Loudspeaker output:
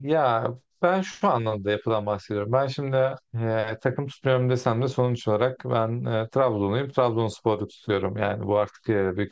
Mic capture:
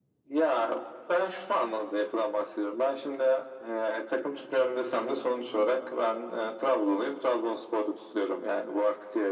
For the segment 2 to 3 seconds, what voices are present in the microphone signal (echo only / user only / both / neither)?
echo only